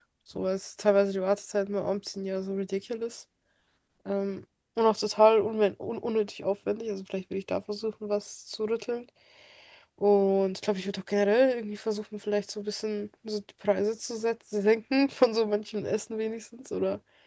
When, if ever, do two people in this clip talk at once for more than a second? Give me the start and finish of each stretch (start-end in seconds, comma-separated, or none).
none